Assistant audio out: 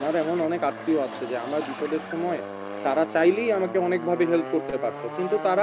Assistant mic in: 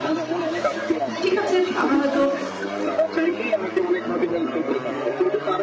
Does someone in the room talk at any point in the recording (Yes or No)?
Yes